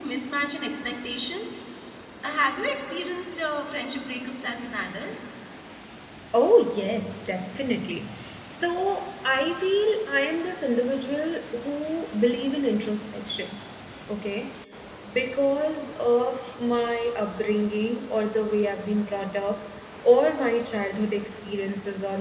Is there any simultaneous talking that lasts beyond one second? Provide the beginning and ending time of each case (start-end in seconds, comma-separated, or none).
none